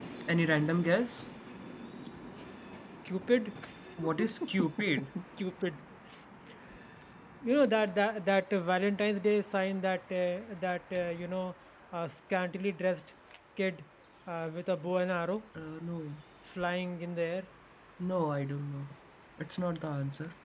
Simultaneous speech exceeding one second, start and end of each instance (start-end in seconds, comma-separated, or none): none